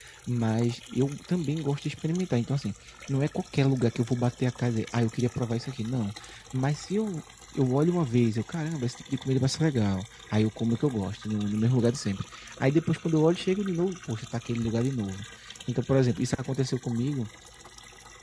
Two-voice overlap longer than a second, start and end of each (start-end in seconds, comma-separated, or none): none